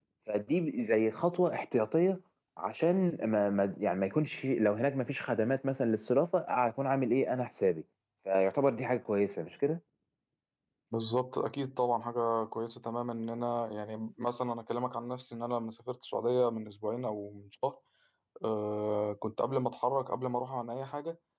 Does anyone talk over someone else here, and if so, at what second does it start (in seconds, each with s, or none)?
none